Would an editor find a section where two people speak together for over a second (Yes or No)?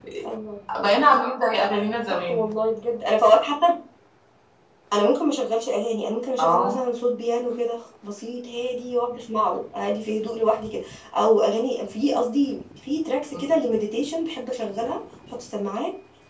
No